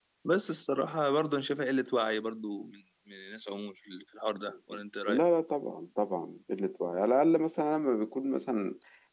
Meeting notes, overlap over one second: none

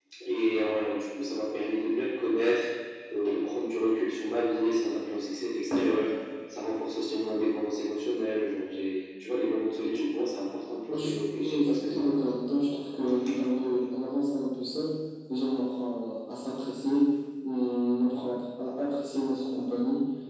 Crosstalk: present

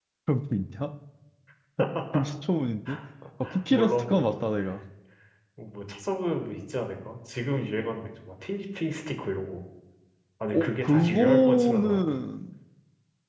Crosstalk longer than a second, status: present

